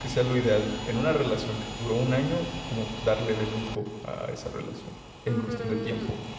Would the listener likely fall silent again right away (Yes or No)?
No